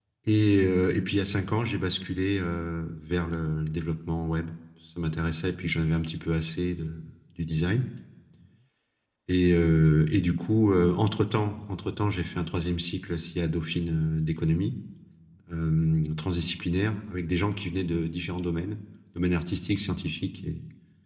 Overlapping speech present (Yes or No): No